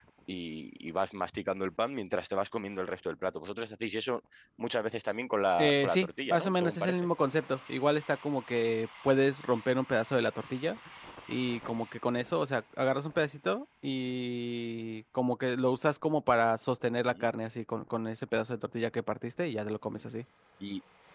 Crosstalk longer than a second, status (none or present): present